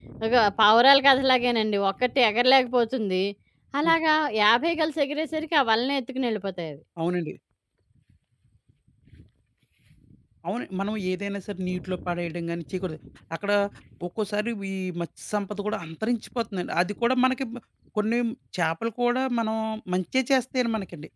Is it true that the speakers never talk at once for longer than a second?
Yes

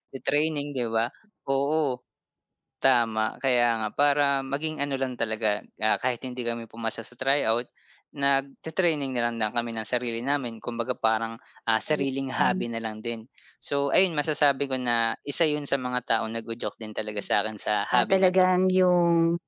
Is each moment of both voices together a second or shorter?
Yes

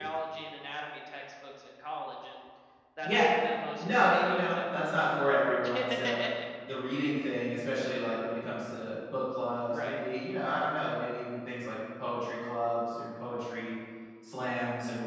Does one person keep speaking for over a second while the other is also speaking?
Yes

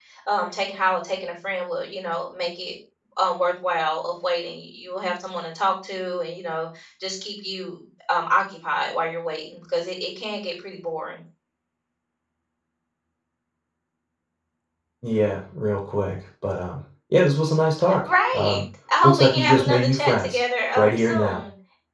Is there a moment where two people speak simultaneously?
Yes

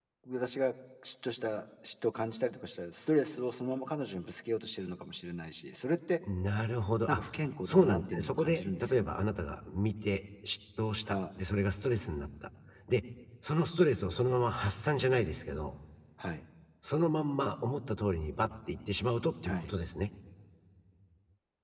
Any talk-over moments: Yes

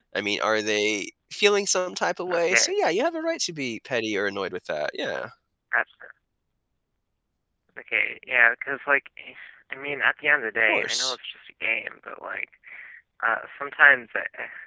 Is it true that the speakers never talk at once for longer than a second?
Yes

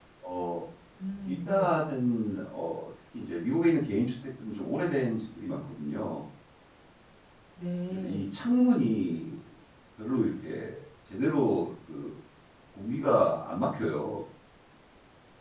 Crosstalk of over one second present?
No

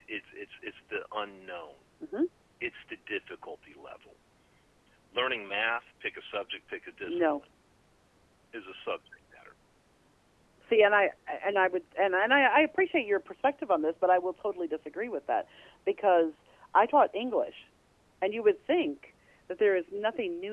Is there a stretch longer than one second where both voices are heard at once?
No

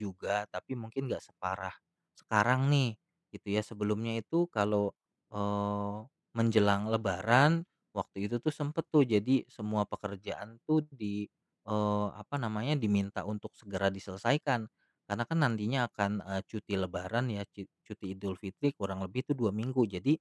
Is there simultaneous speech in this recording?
No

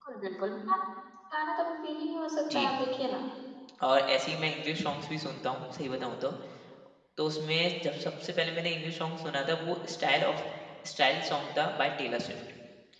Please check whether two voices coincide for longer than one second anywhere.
No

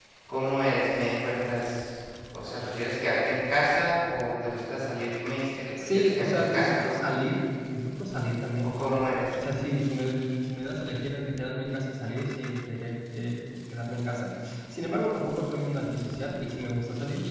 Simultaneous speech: Yes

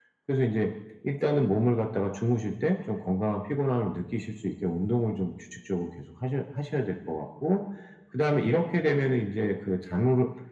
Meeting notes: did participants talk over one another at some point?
No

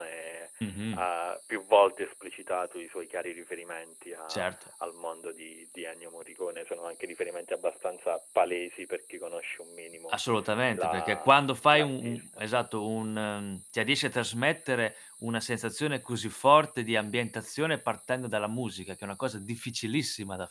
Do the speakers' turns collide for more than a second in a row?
Yes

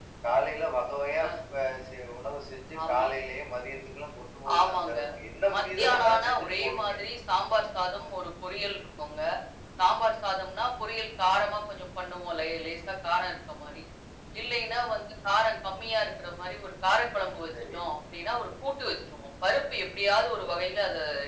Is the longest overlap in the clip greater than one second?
Yes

